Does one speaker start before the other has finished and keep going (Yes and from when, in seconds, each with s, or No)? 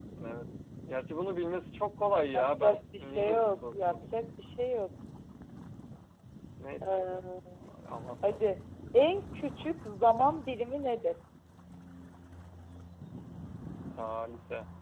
Yes, from 2.3 s